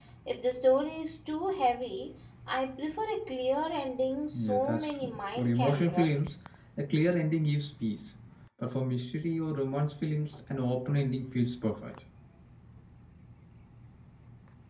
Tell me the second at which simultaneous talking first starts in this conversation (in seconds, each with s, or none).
4.3 s